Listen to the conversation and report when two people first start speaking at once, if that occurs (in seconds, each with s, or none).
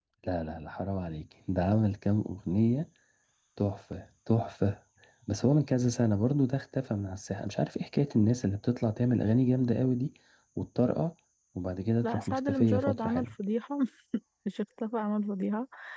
12.0 s